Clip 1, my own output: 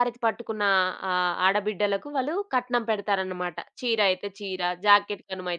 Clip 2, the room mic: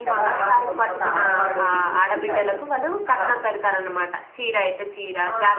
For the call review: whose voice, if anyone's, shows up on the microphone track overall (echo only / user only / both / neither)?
both